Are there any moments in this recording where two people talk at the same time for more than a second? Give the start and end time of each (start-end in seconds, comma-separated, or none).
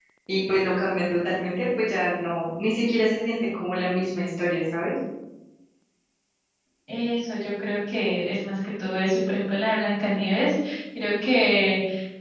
none